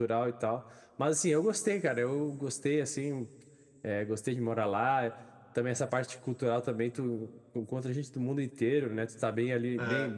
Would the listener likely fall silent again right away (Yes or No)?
Yes